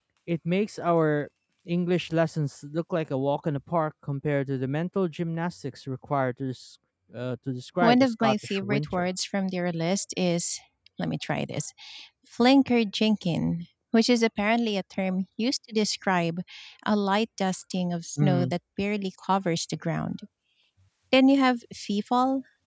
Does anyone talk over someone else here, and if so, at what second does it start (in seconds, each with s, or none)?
7.8 s